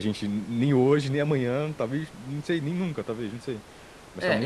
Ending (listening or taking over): taking over